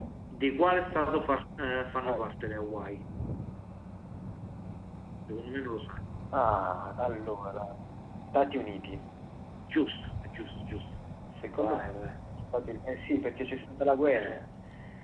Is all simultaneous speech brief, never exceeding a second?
Yes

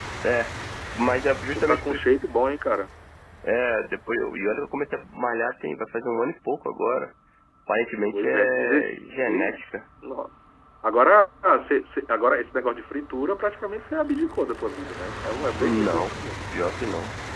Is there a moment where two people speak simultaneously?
Yes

